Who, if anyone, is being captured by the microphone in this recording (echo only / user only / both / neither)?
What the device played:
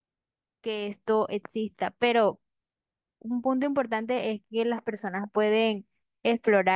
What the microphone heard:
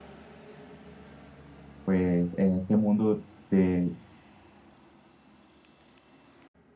user only